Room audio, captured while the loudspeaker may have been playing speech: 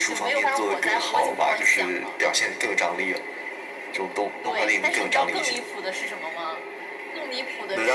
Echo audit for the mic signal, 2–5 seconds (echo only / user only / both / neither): echo only